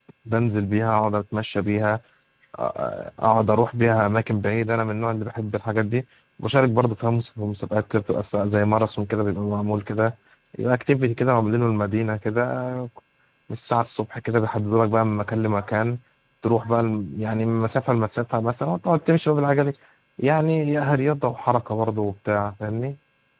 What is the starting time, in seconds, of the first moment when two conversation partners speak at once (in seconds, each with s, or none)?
none